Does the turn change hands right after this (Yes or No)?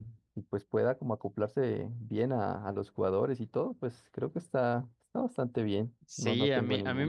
Yes